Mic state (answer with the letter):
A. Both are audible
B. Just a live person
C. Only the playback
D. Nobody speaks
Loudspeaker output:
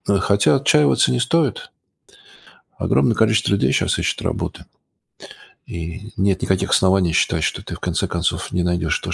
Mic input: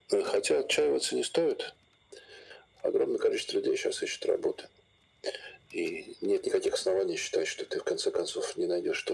C